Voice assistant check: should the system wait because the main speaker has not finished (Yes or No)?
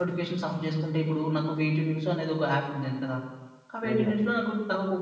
Yes